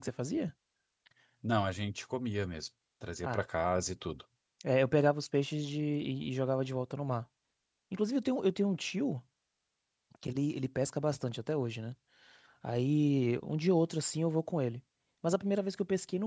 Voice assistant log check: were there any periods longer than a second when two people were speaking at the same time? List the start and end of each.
none

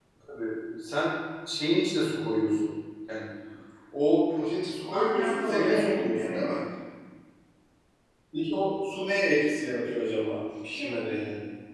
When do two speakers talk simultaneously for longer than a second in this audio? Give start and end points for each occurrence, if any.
4.9-6.5

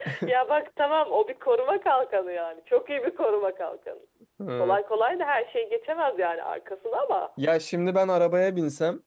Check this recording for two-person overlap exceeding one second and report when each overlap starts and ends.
none

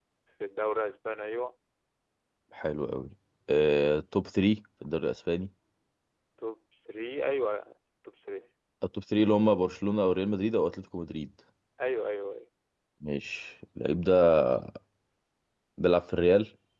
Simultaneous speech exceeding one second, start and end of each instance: none

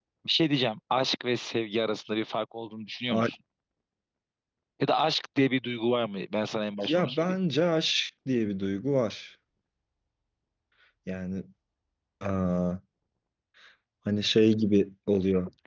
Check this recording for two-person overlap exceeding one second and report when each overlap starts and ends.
none

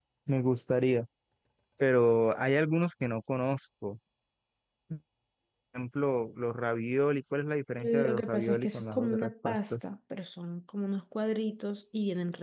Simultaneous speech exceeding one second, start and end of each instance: 7.8-9.8

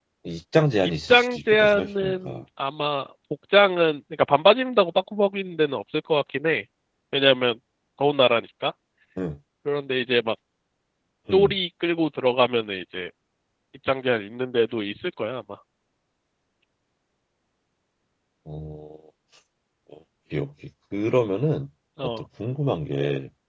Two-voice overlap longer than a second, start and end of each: 1.1-2.4

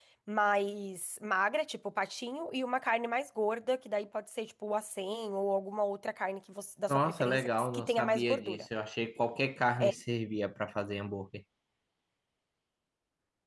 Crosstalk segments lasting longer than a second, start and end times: 6.9-8.7

